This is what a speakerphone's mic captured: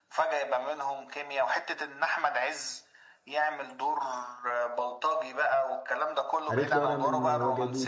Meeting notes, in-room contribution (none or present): present